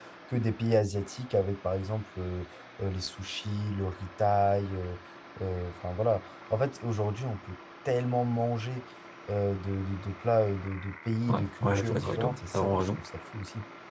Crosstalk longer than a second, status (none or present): present